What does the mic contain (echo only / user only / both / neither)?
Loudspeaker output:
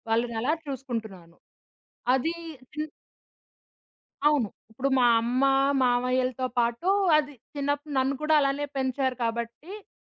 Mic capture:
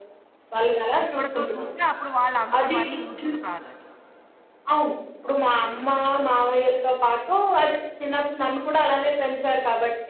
both